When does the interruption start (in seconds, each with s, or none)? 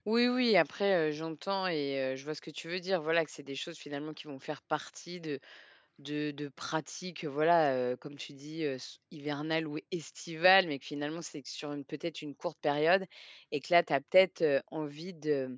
none